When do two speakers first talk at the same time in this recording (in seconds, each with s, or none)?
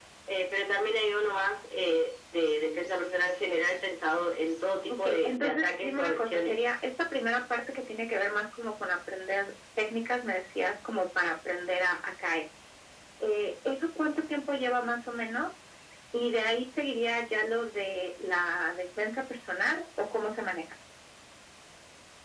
4.9 s